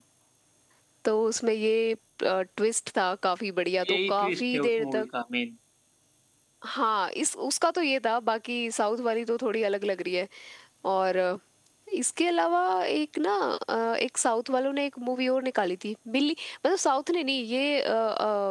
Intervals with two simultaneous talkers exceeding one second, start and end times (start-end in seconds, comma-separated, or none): 3.8-5.0